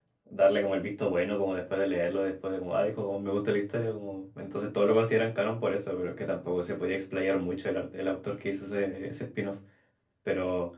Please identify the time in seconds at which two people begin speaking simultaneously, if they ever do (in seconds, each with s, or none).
none